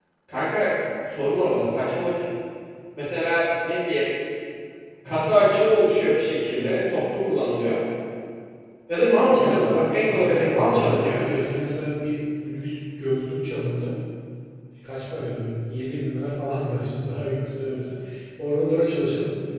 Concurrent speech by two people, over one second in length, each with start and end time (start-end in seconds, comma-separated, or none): 9.3-11.6